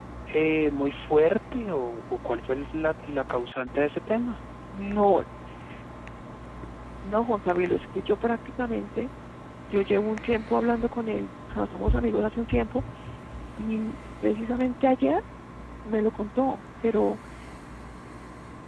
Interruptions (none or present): none